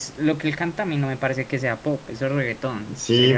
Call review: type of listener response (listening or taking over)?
taking over